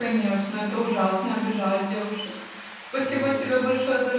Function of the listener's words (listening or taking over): listening